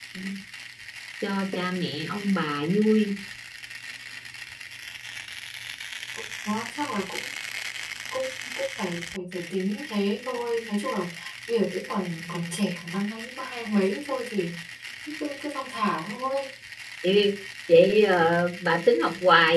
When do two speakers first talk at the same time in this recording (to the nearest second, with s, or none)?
none